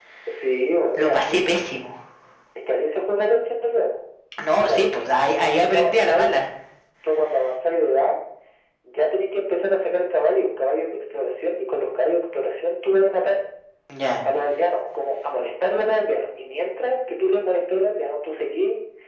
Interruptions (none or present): present